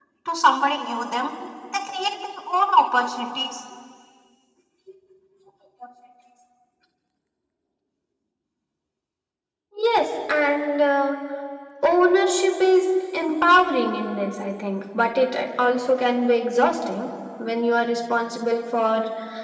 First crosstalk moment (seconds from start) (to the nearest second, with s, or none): none